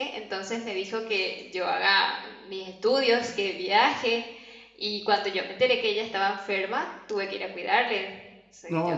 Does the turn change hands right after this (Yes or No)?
Yes